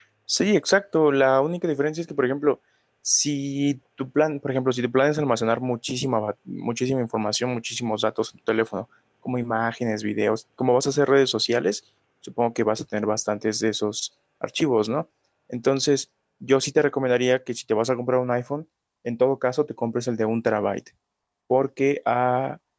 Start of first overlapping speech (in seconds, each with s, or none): none